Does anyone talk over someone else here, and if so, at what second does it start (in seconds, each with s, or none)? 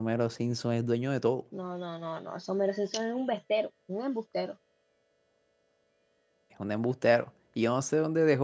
none